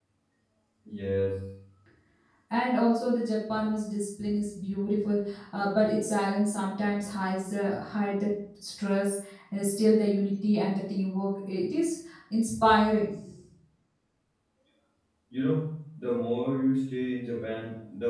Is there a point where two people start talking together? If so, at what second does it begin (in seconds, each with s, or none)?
none